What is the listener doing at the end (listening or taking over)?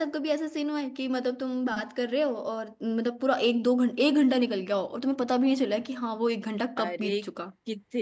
taking over